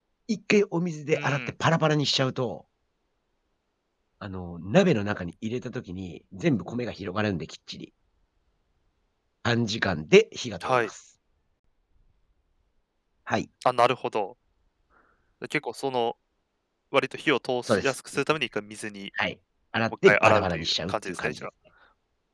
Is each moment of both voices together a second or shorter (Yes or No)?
No